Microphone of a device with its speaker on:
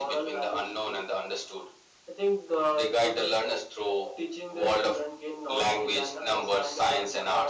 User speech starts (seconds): none

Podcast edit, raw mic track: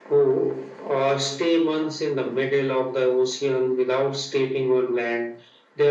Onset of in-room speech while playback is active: none

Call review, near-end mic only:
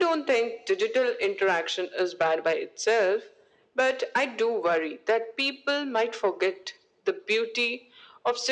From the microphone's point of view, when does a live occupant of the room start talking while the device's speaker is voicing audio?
none

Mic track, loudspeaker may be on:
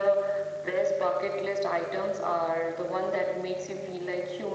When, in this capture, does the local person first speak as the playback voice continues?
none

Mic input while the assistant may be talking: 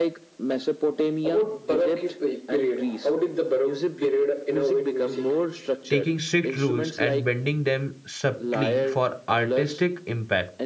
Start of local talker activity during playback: 5.9 s

